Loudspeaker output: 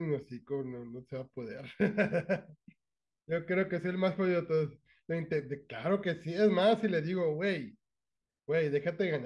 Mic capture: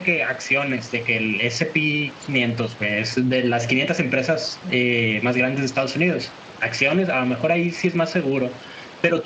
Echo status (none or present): none